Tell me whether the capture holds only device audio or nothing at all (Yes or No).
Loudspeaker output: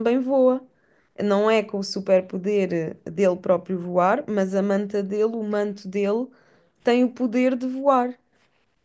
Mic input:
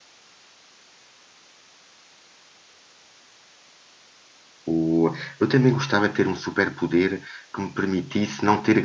No